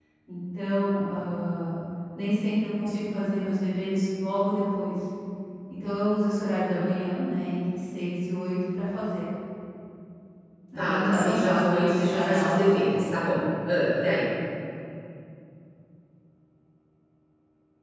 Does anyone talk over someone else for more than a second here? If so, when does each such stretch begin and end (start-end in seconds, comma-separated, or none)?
10.8-13.4